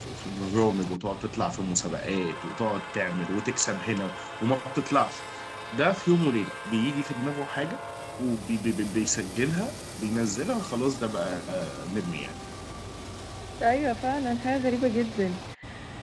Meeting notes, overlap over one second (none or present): none